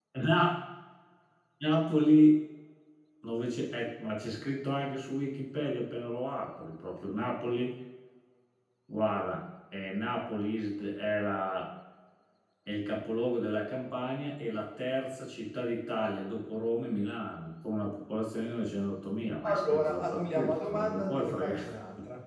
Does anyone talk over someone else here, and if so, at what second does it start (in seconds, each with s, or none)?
19.4 s